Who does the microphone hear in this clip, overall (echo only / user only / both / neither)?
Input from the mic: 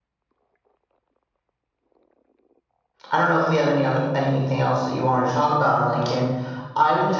user only